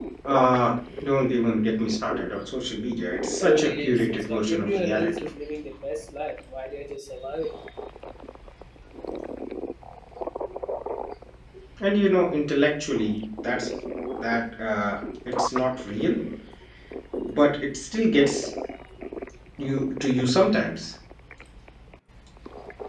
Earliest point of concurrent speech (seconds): 3.4 s

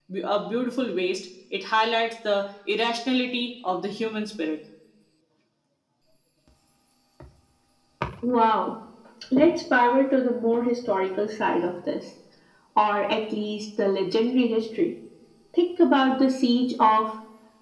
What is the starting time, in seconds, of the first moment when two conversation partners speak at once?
none

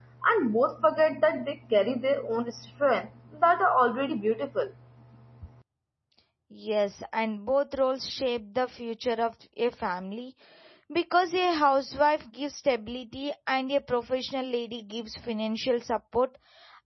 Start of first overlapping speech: none

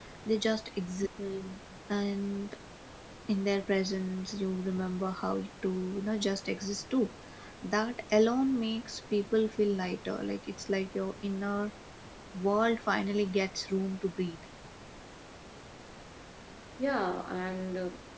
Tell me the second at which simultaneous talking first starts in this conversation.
none

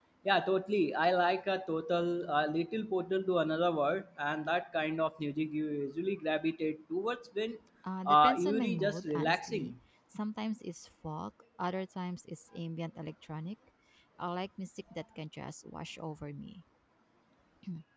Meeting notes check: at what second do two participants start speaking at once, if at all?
8.1 s

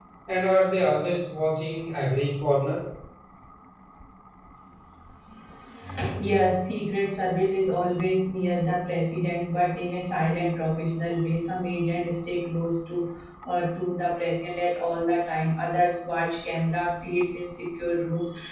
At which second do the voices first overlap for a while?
none

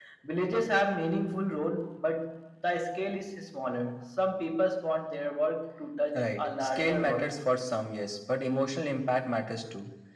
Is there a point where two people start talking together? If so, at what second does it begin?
6.1 s

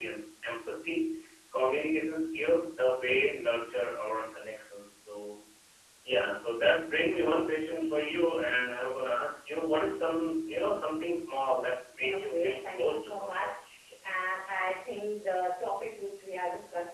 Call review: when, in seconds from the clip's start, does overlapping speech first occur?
12.1 s

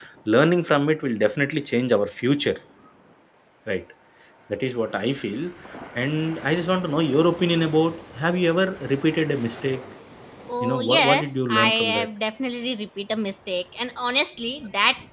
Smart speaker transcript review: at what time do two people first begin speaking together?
10.6 s

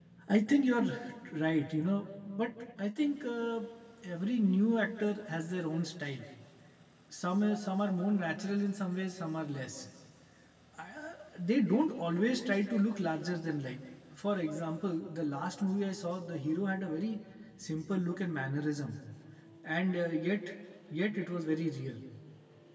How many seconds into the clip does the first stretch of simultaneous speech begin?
none

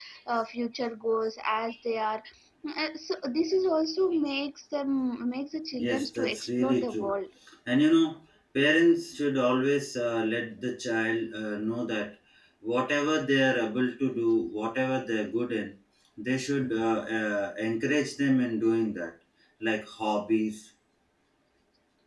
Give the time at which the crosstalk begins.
5.8 s

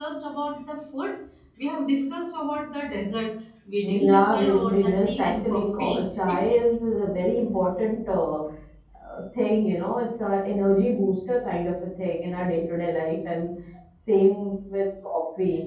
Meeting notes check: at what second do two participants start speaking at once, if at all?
3.8 s

